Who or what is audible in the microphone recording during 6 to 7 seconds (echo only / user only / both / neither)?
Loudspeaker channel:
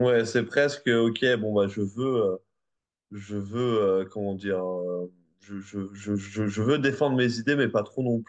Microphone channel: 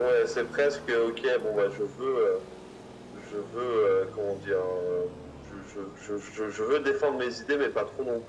echo only